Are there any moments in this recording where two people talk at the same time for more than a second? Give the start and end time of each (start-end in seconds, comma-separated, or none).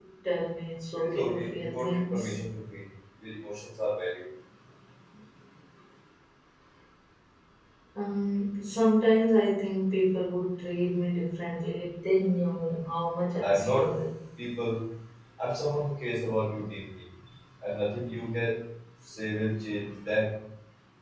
1.0-2.3